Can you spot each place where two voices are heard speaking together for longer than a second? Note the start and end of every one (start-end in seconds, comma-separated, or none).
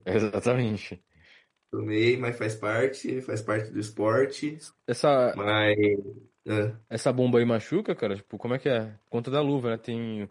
none